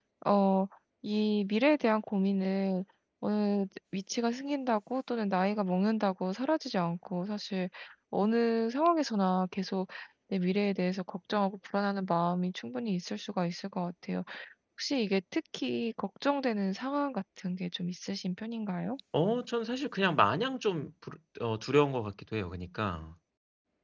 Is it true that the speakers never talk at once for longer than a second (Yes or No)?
Yes